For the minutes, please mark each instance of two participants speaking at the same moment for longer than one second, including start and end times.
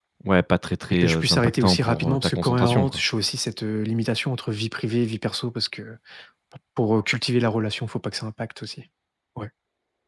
0.9-3.0

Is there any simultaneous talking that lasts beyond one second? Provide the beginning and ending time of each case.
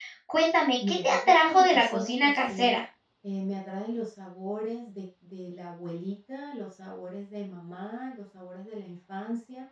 0.9-2.8

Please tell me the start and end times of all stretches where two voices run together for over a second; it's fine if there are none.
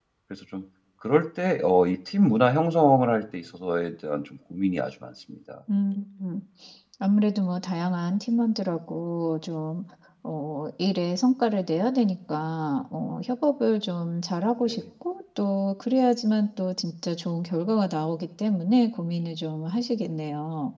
none

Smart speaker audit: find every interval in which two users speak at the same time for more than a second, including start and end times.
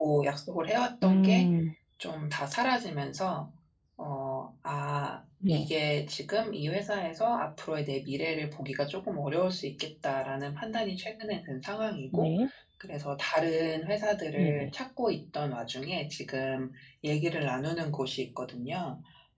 none

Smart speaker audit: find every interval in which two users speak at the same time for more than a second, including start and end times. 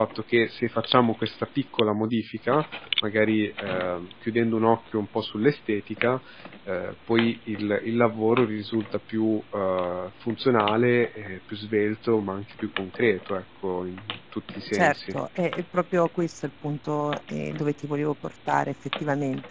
none

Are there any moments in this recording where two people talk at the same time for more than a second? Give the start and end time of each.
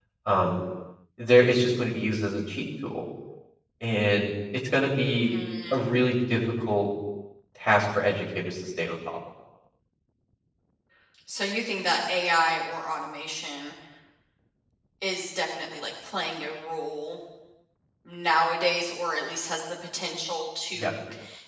none

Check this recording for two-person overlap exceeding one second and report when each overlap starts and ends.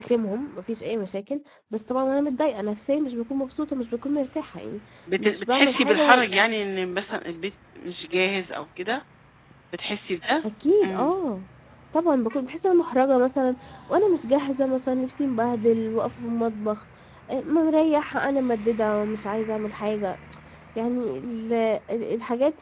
5.2-6.4

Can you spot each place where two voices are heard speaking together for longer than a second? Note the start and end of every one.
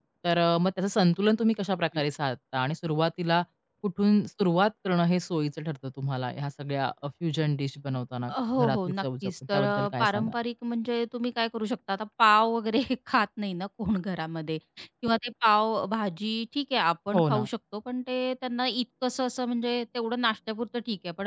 8.6-10.3

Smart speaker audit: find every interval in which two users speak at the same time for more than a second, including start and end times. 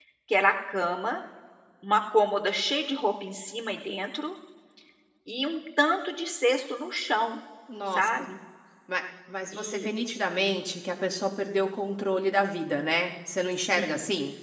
none

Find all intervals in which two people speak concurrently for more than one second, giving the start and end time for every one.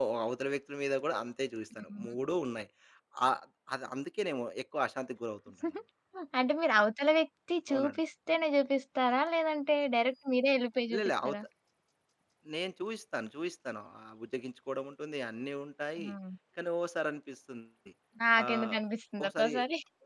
none

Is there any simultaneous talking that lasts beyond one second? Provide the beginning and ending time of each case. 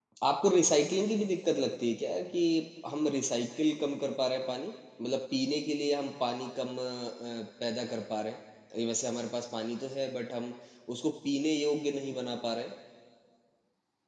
none

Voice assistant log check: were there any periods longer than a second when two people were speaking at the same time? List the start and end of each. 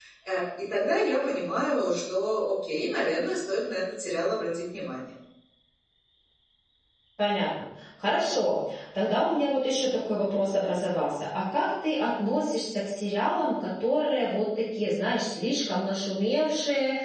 none

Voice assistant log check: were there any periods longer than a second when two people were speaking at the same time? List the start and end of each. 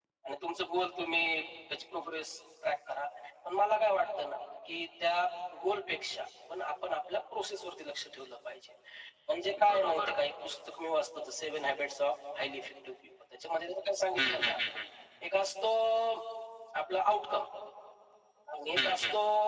none

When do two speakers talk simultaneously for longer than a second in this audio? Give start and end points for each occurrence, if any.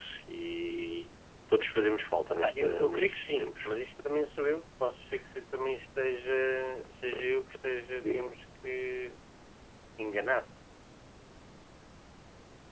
2.3-3.7

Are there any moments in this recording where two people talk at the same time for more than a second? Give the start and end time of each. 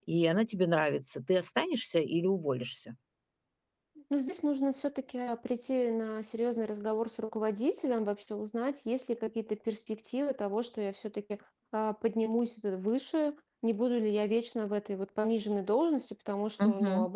none

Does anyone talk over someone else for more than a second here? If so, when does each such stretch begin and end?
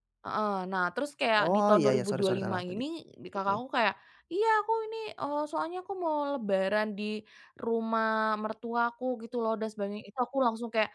1.4-2.8

